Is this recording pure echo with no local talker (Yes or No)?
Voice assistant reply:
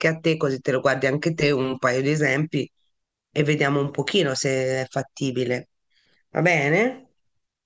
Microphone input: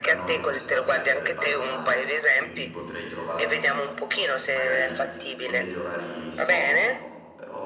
No